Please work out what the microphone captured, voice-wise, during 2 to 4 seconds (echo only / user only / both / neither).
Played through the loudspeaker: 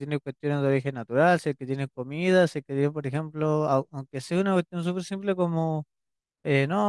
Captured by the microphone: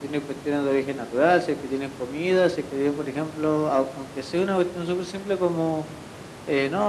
echo only